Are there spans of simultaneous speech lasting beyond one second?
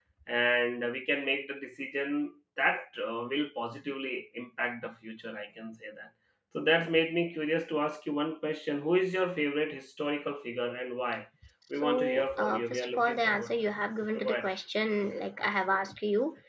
Yes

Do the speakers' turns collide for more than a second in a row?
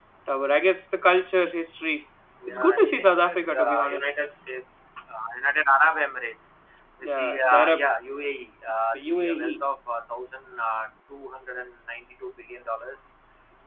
Yes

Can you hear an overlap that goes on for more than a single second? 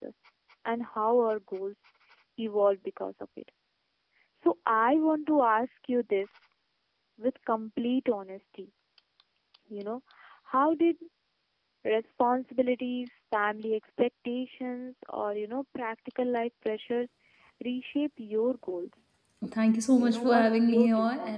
Yes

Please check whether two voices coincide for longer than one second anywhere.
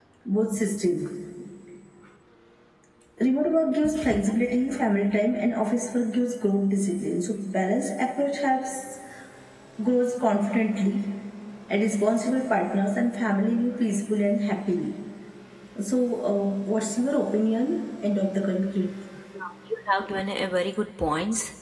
No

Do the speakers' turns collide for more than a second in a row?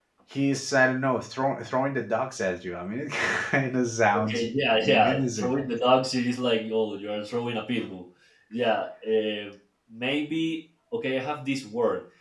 Yes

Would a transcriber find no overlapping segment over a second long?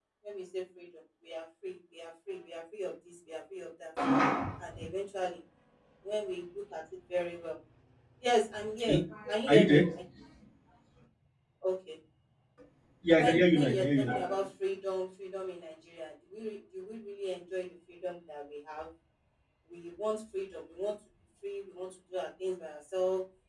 No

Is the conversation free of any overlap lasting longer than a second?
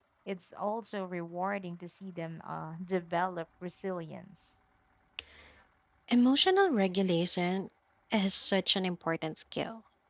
Yes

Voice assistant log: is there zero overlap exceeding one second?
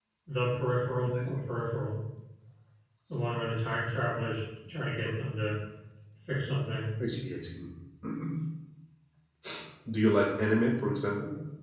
Yes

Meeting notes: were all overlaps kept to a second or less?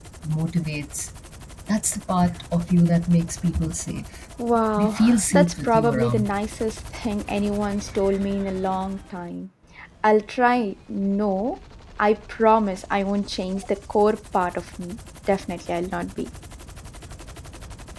No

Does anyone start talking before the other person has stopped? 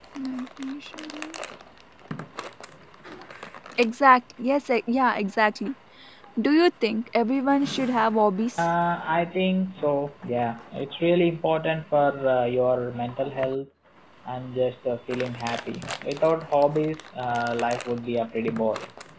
No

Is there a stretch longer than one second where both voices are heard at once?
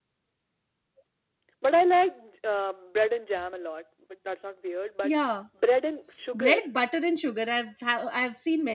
No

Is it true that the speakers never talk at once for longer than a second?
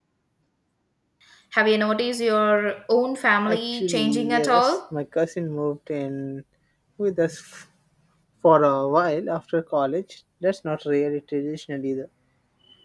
No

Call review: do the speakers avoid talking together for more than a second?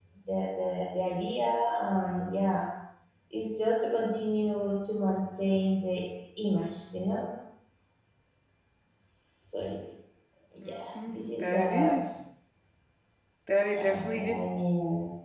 No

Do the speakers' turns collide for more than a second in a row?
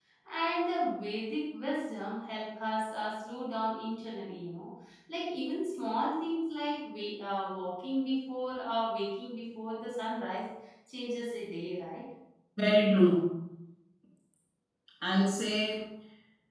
No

